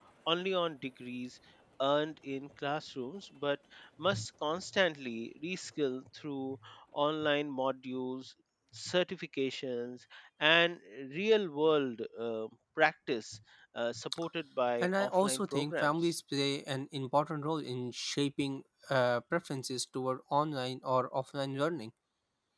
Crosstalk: present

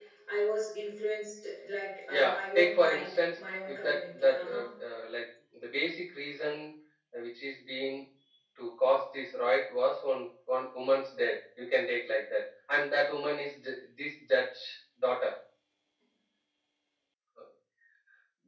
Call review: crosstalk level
present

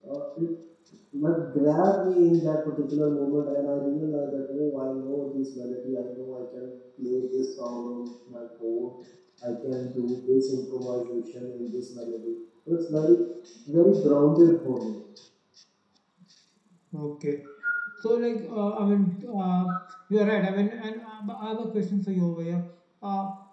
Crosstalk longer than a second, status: none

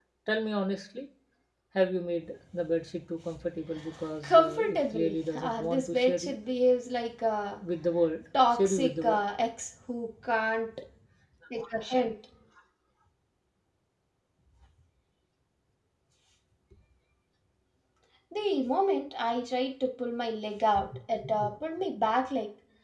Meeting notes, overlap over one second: present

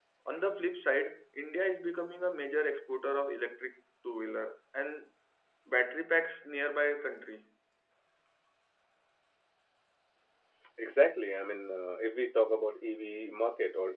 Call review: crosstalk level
none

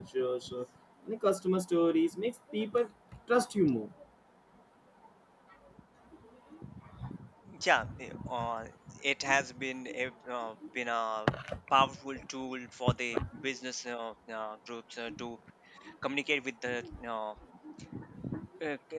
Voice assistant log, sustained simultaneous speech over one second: none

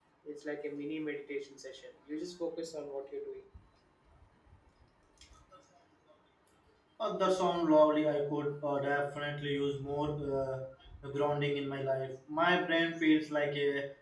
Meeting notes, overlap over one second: none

